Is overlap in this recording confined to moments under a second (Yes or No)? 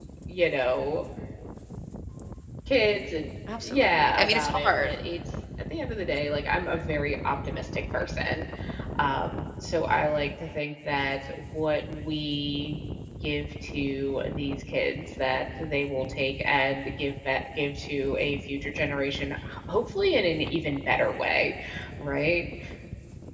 No